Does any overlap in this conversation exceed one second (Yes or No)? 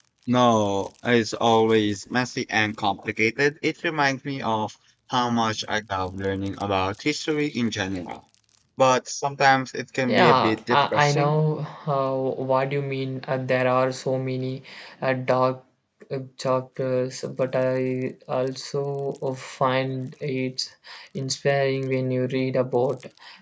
Yes